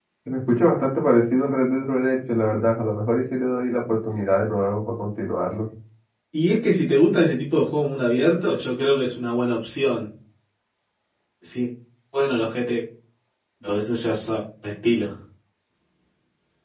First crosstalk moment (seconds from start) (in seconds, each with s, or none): none